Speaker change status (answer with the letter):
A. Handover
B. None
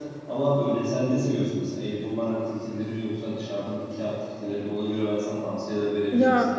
A